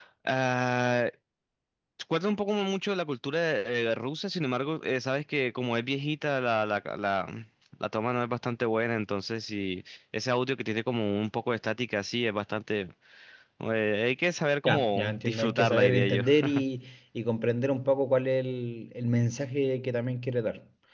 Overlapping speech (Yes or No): Yes